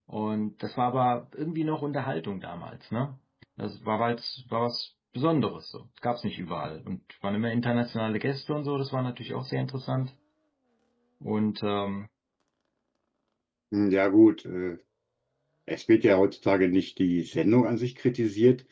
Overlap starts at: none

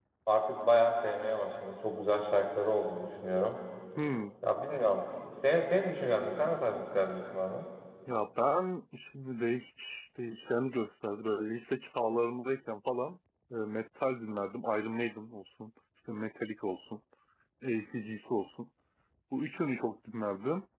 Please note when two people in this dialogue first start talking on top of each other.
none

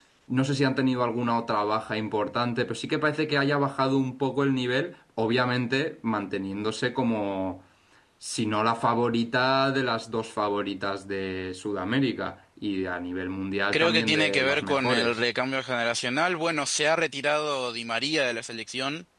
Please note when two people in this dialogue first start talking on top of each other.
13.7 s

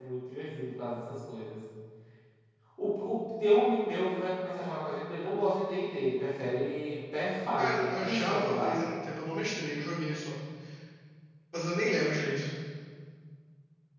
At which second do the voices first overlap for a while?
7.6 s

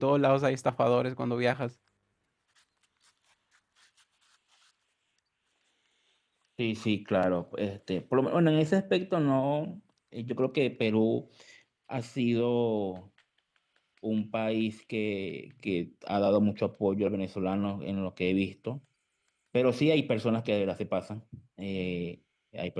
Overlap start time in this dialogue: none

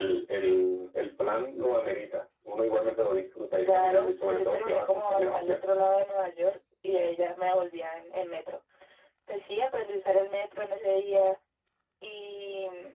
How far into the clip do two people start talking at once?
3.6 s

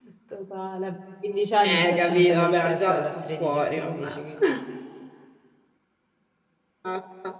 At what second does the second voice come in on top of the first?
1.6 s

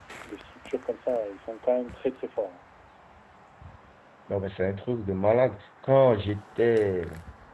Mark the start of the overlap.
none

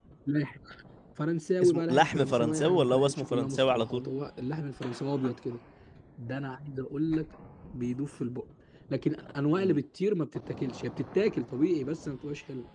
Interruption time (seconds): 1.6 s

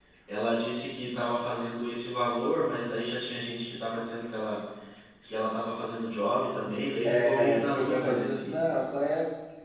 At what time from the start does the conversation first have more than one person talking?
7.0 s

